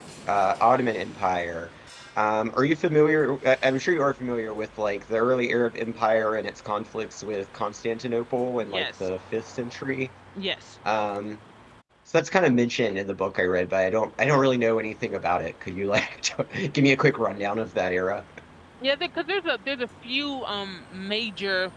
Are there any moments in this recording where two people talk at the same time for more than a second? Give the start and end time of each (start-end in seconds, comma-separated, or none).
none